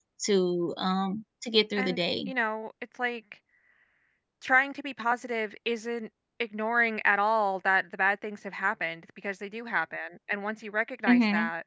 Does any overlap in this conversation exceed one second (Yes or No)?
No